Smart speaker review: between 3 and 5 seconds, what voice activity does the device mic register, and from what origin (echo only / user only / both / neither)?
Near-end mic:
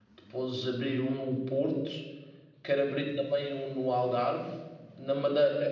user only